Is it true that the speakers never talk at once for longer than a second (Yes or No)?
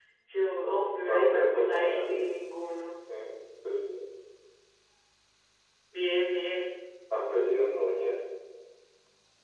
No